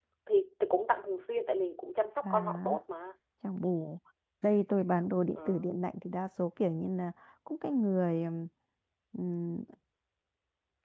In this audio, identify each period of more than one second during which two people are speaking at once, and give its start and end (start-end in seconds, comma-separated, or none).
none